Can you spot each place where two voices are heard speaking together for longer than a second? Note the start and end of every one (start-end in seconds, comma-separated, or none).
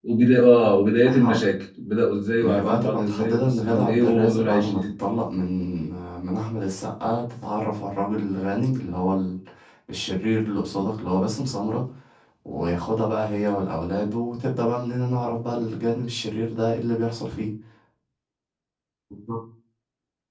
2.4-4.9